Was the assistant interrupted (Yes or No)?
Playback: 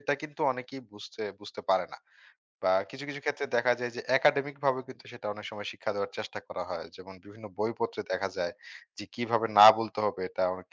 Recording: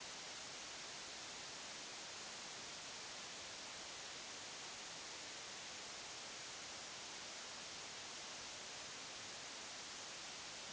No